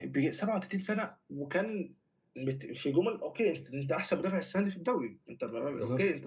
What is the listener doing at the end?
listening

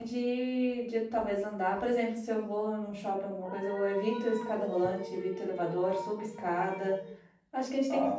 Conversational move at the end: listening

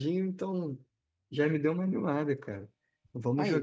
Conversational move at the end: listening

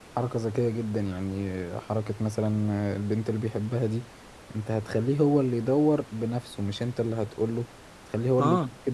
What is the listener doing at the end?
listening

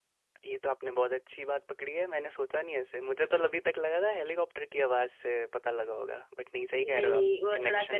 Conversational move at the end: taking over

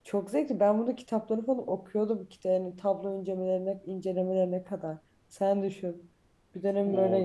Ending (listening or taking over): taking over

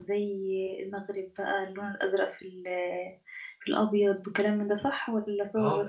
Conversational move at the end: taking over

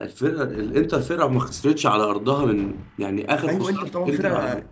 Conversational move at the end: taking over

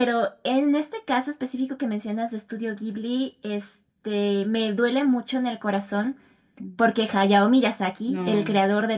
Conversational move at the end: listening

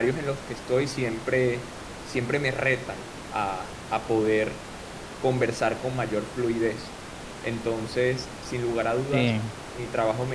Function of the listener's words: listening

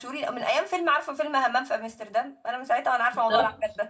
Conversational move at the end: taking over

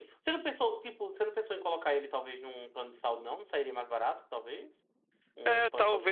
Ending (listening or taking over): taking over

